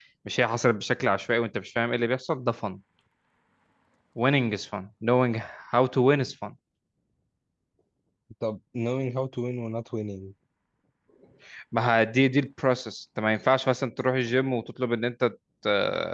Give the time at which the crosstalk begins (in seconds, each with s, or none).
none